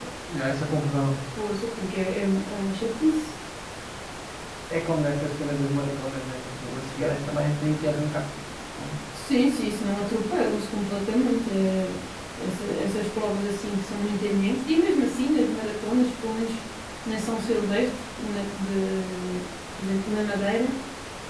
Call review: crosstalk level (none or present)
none